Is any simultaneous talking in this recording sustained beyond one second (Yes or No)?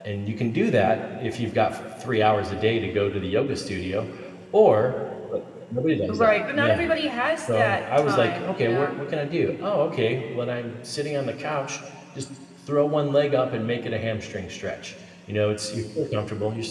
Yes